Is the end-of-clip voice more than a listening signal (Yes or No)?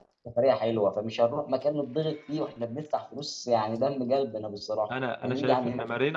Yes